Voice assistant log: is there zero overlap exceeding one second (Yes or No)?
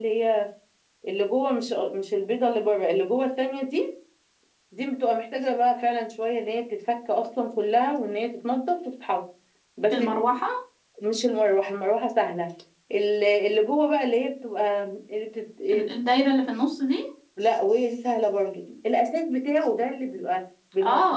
Yes